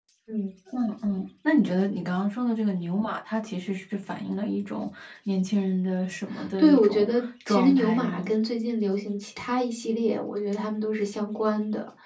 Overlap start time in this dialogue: 6.6 s

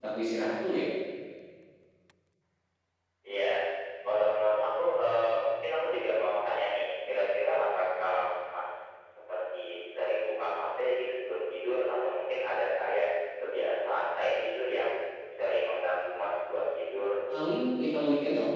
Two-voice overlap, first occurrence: none

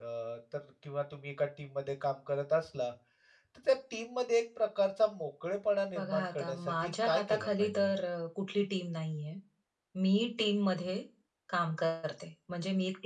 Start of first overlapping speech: 5.9 s

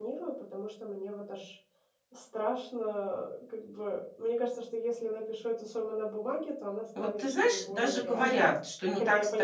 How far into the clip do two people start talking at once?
7.0 s

